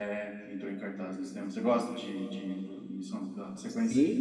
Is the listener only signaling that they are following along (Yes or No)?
No